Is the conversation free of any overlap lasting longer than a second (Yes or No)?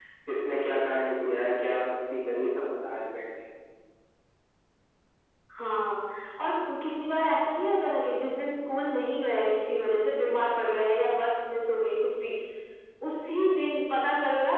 Yes